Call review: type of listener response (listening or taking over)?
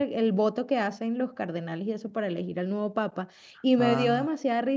listening